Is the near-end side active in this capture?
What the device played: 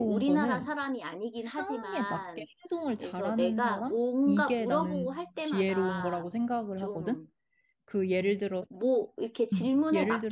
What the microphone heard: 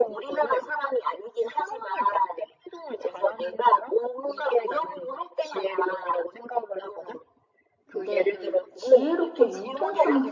Yes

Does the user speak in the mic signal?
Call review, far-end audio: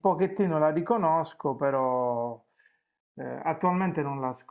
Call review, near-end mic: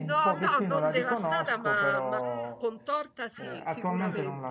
Yes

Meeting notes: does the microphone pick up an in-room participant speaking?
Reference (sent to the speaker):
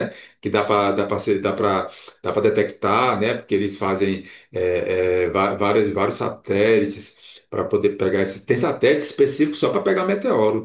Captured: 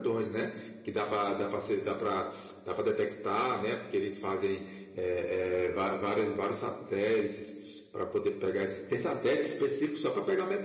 No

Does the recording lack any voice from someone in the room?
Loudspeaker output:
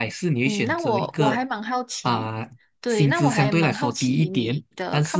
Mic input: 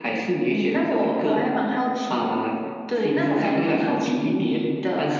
Yes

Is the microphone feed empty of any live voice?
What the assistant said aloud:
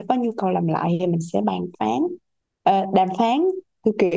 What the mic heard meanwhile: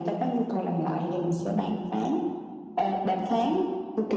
Yes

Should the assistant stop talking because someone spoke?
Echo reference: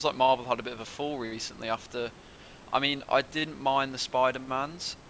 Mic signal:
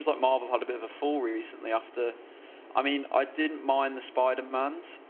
No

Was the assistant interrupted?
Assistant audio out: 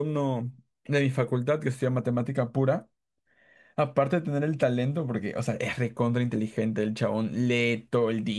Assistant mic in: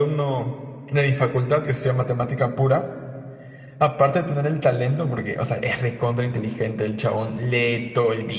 No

